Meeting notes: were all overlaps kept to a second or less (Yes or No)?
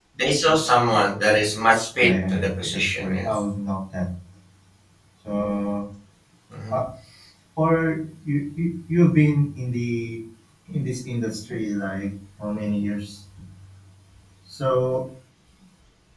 No